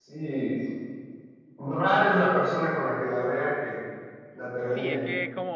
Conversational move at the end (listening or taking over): taking over